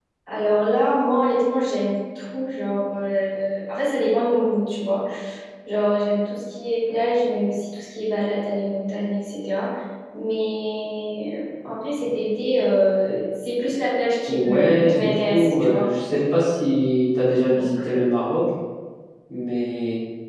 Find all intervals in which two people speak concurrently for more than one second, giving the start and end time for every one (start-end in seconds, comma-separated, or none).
14.3-15.9